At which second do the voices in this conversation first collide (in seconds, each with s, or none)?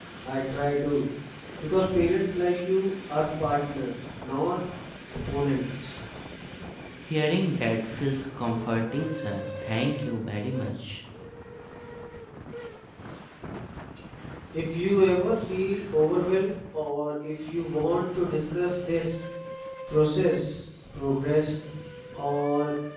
none